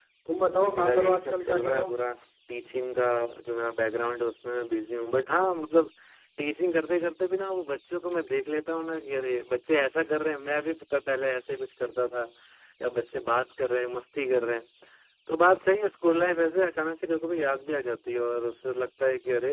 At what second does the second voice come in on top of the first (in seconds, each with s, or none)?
0.6 s